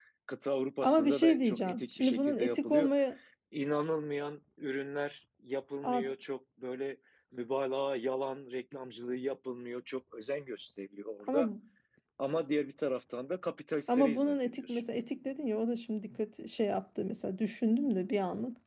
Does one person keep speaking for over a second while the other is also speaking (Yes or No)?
Yes